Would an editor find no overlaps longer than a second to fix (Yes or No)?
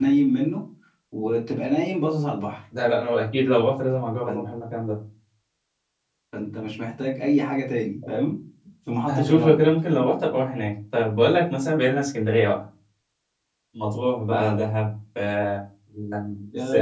Yes